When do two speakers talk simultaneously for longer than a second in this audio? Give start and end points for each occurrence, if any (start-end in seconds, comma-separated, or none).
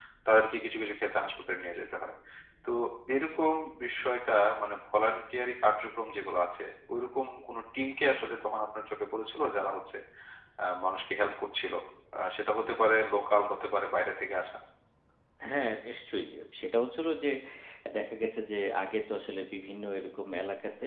none